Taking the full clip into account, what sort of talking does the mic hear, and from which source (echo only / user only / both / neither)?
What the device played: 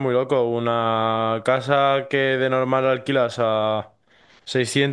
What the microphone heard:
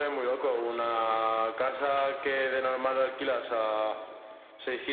echo only